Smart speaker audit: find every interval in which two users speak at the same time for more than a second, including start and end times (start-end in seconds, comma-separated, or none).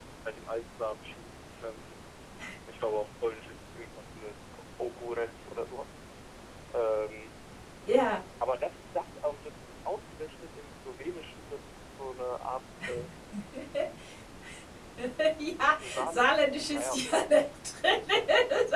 15.8-17.0